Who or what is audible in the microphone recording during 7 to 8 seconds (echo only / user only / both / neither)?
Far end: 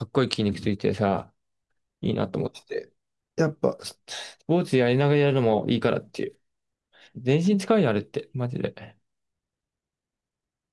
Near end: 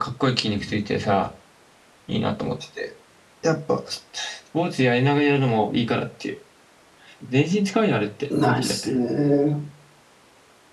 echo only